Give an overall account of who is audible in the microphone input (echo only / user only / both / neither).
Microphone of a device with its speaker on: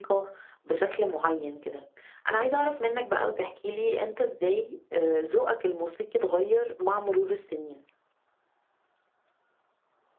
echo only